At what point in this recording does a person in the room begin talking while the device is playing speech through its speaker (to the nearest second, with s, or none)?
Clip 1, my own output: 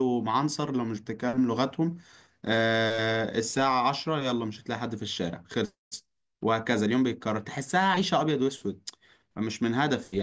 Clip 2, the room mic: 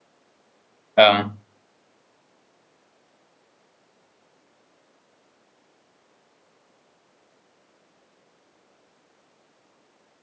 1 s